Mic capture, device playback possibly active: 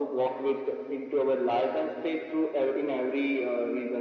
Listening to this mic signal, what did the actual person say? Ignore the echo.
none

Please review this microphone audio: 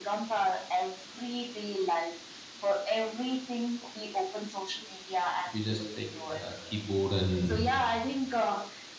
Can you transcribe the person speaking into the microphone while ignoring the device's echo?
if you just take uh, keyboard and

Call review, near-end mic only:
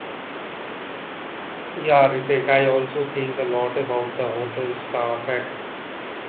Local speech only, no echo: Yeah, Ritek, I also think a lot about the hotel staff at

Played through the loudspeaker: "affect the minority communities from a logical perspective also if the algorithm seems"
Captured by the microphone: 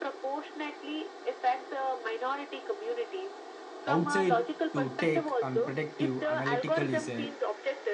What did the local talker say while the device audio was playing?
outside to take and predictive analytical is a,

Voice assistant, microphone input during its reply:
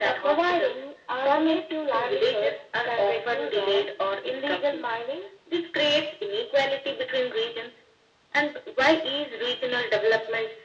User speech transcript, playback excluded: none

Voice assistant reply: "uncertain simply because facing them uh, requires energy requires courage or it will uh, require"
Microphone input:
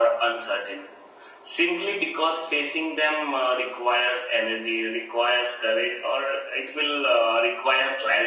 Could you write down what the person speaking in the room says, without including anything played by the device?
none

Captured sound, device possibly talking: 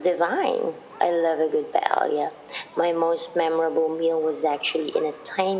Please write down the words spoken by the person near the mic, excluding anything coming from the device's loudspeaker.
none

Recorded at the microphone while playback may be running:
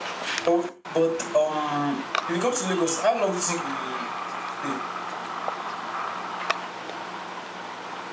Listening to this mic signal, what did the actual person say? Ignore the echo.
But, but um, if you come to Lagos, how long do you think you stay?

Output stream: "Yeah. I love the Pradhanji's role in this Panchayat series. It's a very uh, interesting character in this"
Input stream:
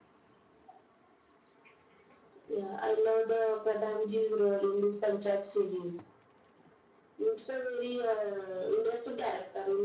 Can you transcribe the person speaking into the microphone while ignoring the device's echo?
none

